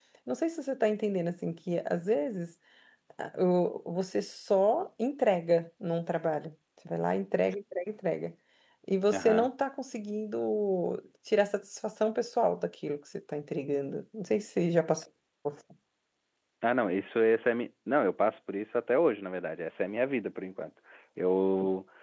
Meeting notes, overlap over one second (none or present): none